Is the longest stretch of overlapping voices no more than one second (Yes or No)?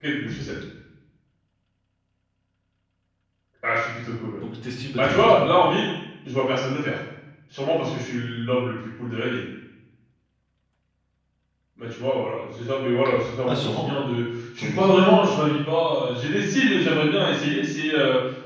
Yes